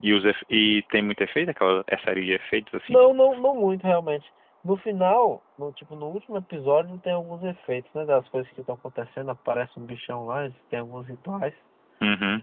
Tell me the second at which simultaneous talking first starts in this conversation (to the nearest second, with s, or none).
none